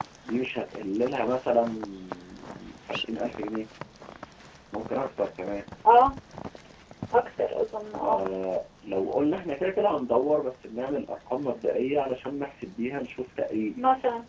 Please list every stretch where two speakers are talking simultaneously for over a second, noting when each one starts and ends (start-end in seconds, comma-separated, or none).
none